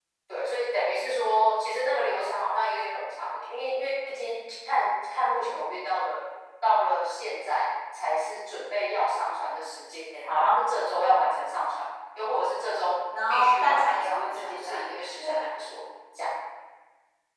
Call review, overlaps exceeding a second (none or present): present